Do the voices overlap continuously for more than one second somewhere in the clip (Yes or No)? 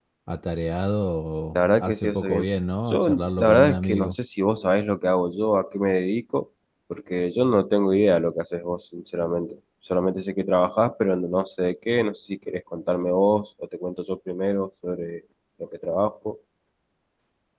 Yes